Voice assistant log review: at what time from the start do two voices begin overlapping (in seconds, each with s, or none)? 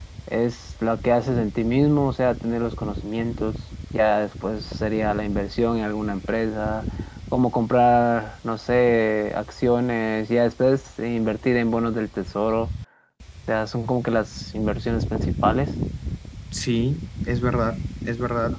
none